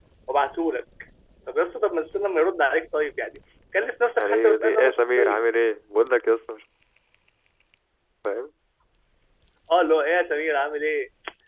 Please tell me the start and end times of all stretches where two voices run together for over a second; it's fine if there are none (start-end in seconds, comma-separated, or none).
4.2-5.5